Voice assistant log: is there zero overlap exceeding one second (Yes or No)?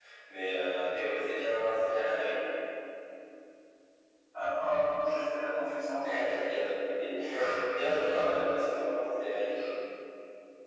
Yes